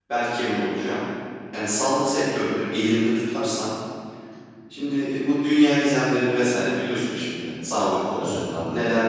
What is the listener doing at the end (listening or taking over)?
listening